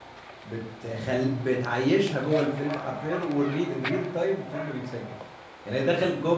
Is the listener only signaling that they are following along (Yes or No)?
Yes